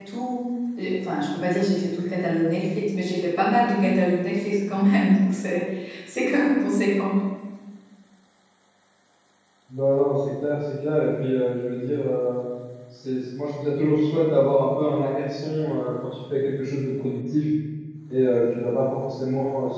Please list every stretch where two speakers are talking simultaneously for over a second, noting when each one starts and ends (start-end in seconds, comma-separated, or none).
none